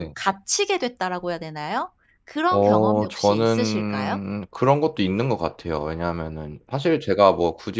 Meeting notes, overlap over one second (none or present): present